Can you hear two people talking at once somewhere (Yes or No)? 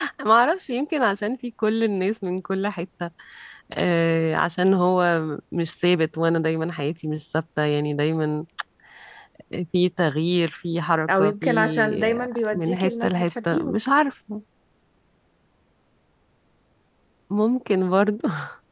Yes